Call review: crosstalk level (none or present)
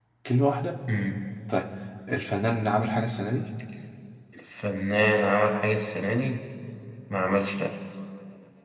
none